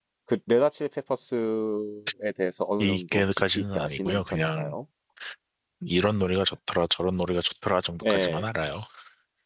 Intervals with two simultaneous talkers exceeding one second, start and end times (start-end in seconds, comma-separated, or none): 2.8-4.7